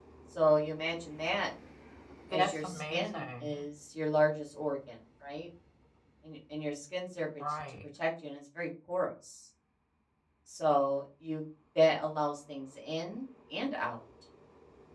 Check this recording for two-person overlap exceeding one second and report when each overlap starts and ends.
2.3-3.6

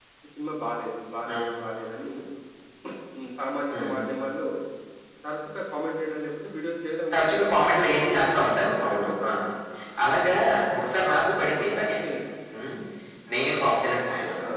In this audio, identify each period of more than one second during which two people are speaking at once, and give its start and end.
8.0-9.3

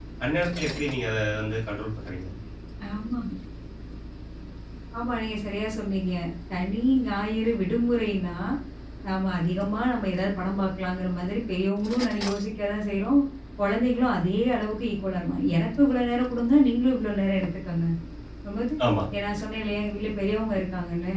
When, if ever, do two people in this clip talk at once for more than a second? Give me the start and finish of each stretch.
none

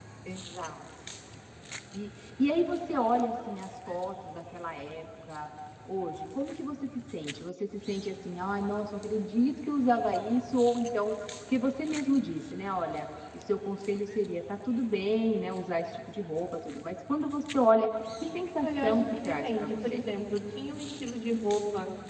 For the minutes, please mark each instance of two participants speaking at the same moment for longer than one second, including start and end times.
18.6-20.0

